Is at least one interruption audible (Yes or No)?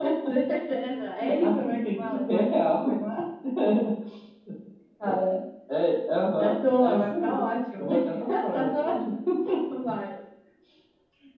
Yes